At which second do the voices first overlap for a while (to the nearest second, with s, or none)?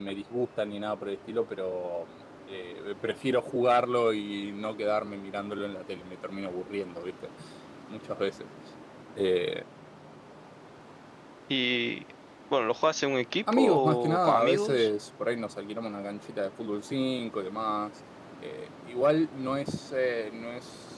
13 s